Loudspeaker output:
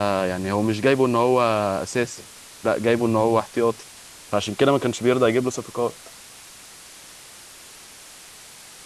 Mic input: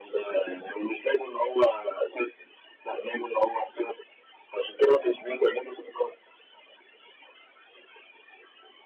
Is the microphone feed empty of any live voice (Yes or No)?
Yes